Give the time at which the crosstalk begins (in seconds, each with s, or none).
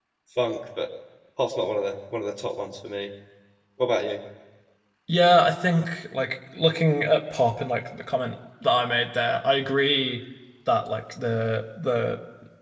none